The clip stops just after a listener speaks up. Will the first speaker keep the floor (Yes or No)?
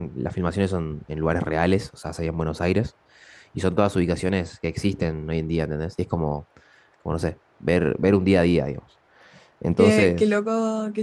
No